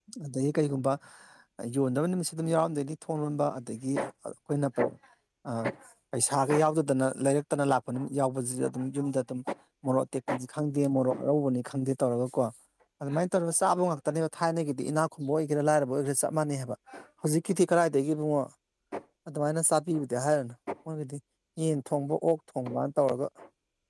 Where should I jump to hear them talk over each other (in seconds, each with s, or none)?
none